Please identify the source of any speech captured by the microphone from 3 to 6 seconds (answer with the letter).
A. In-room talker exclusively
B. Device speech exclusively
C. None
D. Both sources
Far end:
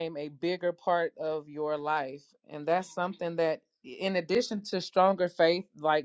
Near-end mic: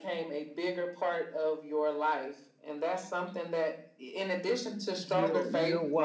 D